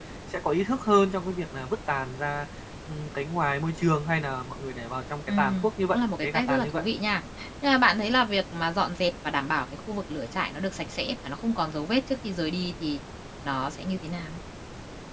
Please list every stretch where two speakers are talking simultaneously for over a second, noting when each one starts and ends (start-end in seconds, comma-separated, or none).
5.3-6.8